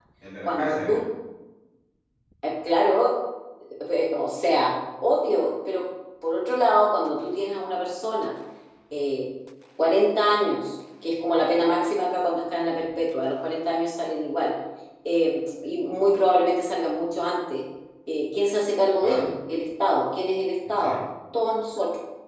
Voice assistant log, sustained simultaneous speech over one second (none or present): none